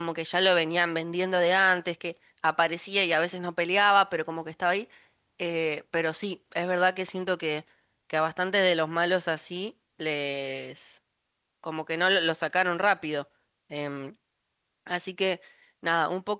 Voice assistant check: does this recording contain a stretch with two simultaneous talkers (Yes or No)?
No